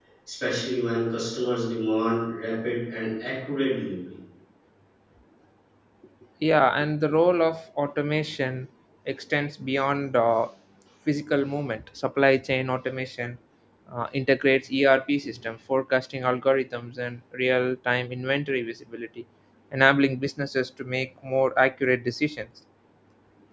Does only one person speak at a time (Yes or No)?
Yes